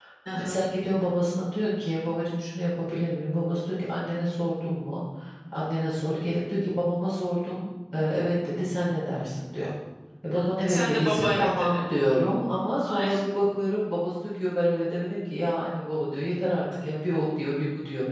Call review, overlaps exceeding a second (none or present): present